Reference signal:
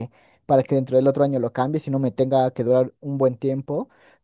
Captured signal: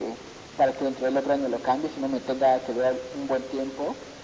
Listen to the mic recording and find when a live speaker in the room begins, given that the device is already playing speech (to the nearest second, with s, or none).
none